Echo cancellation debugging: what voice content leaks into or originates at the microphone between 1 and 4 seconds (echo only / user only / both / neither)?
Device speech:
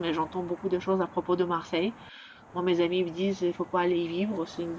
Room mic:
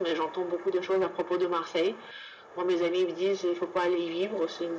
echo only